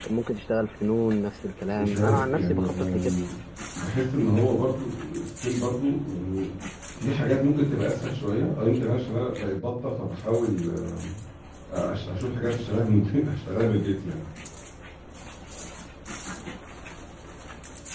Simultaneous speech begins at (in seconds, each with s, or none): 1.7 s